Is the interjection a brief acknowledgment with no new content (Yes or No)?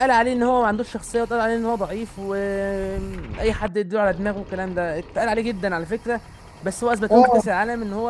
Yes